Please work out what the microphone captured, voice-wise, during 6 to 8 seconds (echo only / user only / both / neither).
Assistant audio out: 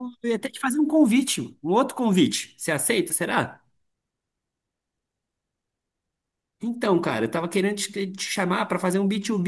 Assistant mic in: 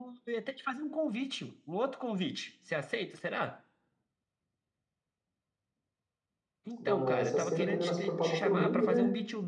both